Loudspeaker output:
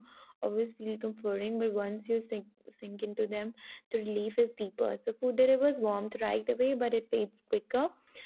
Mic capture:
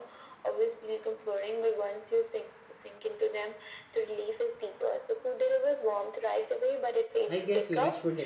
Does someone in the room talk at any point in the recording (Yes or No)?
Yes